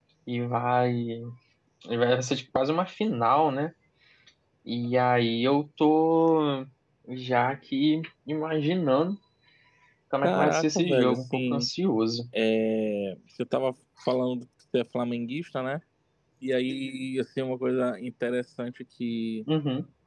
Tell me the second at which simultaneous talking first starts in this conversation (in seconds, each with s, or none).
10.2 s